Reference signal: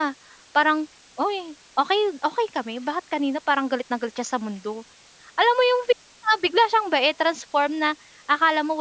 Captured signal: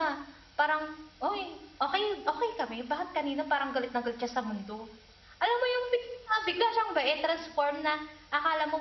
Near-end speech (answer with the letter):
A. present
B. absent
B